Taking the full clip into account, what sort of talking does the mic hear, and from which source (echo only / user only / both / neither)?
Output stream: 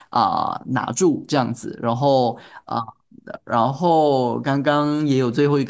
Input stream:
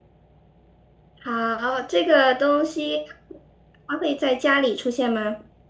user only